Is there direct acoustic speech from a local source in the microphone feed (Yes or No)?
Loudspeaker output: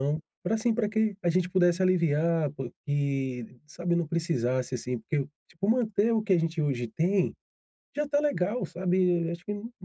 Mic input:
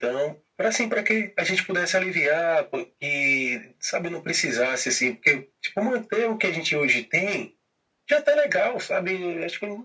No